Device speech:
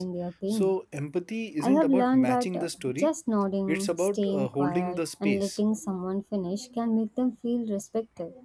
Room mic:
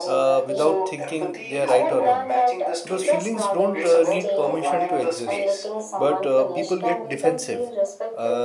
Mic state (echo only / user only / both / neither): both